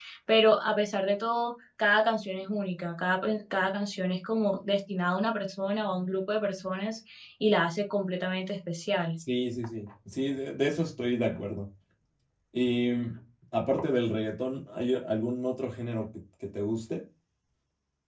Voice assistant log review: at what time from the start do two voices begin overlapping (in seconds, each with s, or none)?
none